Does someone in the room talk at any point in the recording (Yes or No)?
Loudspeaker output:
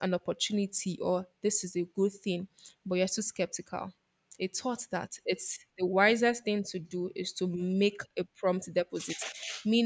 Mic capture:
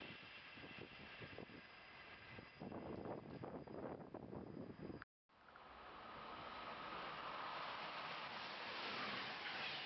No